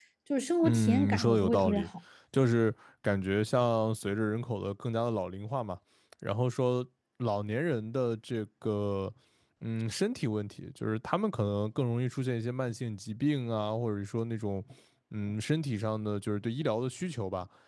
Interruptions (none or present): present